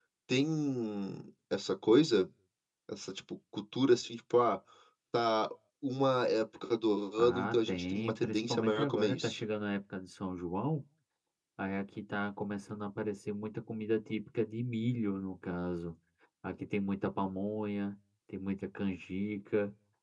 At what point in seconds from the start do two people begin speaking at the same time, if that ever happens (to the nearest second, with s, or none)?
7 s